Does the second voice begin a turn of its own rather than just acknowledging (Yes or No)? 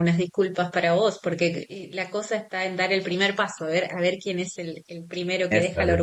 No